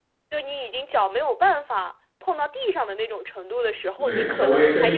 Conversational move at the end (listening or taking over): taking over